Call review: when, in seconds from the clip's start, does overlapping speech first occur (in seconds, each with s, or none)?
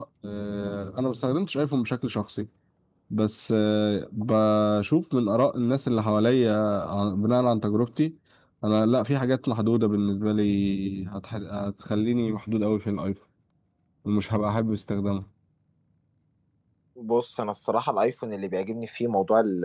none